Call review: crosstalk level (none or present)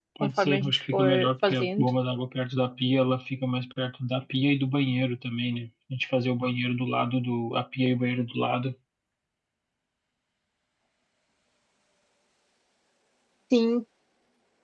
present